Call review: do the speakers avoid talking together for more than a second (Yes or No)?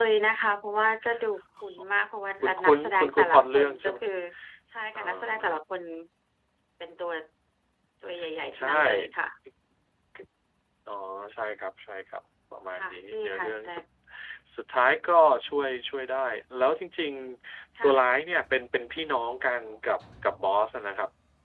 No